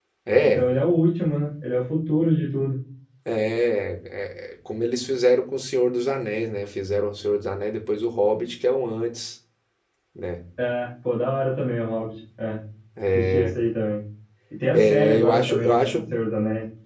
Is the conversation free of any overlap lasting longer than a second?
No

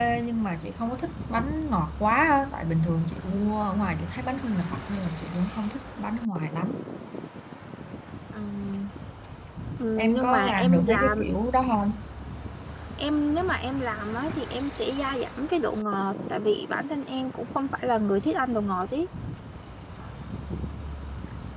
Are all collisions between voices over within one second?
No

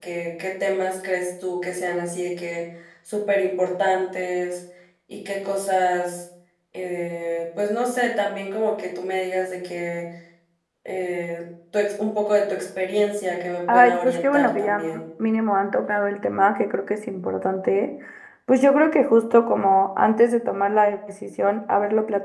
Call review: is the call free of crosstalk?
No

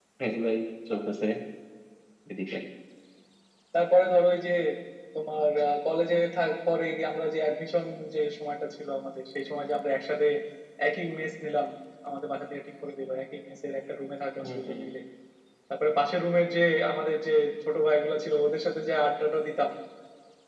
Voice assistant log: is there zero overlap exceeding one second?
Yes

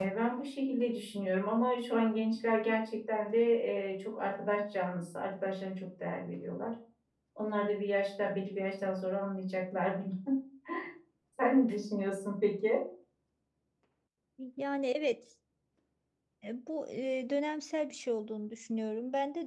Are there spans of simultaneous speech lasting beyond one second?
No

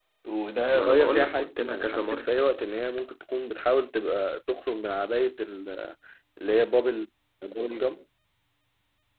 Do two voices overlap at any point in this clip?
Yes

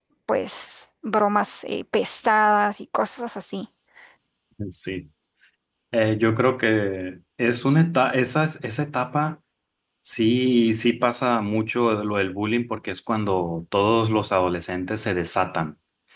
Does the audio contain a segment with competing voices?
No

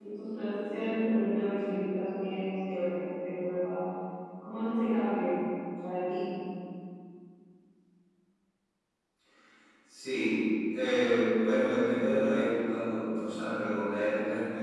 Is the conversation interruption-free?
Yes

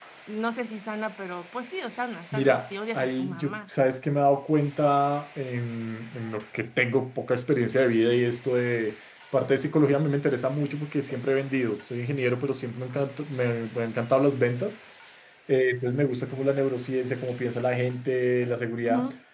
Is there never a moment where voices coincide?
No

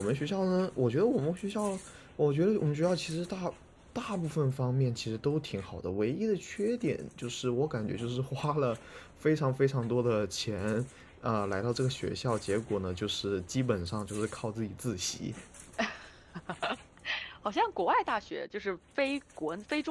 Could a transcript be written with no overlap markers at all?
Yes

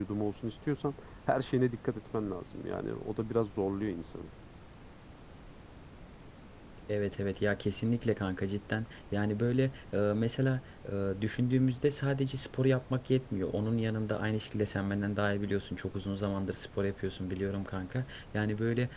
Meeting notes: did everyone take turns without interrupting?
Yes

